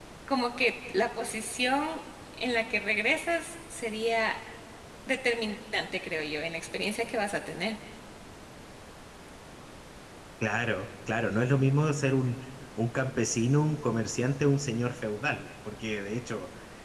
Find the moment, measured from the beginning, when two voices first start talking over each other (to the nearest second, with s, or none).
none